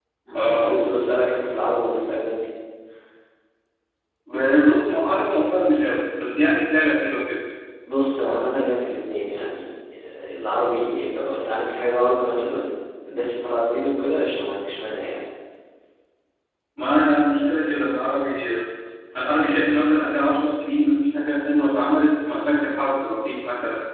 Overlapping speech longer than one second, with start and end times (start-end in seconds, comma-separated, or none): none